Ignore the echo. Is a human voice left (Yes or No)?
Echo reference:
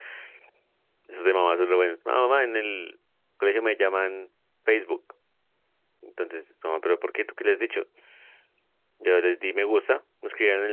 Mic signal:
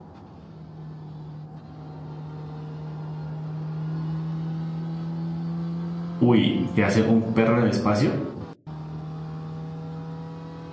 Yes